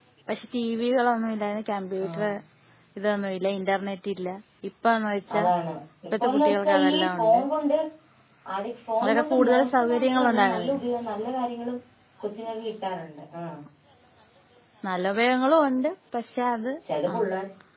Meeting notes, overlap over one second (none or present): present